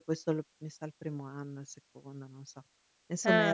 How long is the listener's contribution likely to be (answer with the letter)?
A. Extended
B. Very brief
B